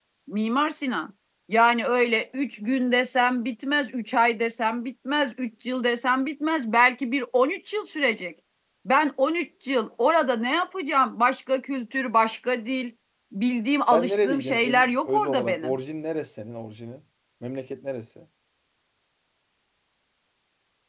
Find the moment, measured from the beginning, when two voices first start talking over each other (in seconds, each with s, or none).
13.9 s